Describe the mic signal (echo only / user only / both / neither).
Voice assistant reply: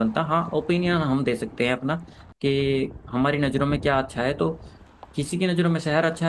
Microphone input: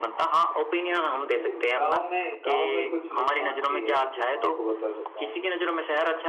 both